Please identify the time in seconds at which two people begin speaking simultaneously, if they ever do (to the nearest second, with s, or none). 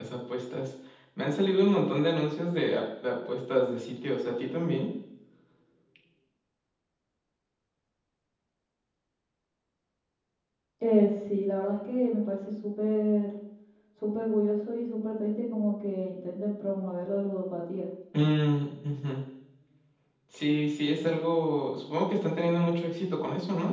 none